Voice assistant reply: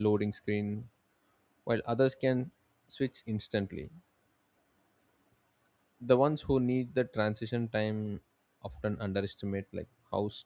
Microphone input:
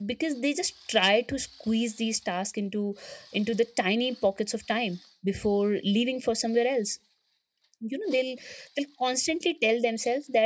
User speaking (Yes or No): Yes